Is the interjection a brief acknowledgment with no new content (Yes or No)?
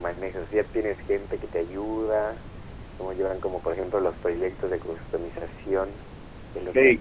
No